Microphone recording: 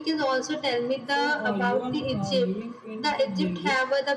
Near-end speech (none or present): present